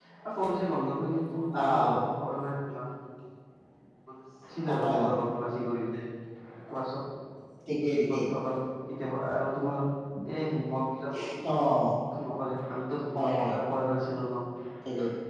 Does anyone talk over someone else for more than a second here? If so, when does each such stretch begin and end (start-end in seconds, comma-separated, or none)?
none